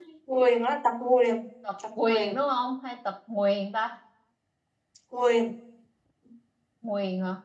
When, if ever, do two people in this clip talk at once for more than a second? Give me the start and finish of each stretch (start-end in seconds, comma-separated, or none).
none